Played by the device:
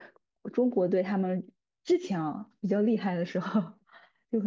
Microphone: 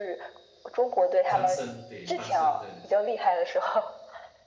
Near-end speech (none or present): present